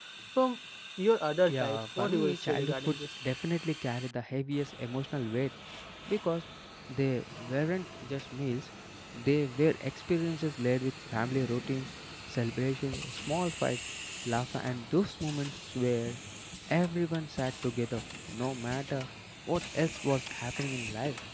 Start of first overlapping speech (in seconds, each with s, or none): 1.4 s